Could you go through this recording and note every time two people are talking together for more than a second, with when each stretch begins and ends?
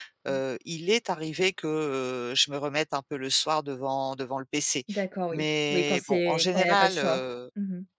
5.3-7.2

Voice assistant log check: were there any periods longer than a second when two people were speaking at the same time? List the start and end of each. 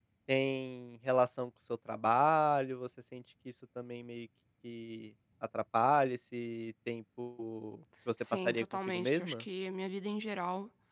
8.2-9.4

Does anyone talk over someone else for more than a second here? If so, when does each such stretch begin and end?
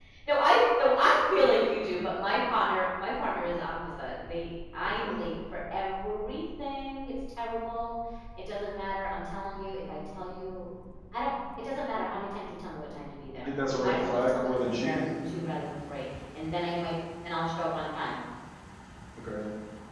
13.4-15.0

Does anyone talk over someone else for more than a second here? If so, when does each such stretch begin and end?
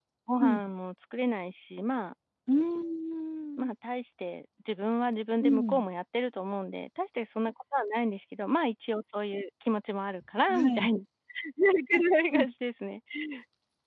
none

